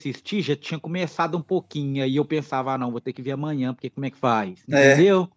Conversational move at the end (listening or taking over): taking over